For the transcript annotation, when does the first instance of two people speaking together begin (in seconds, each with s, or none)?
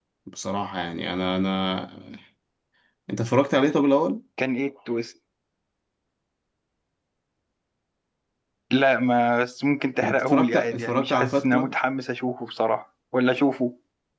10.0 s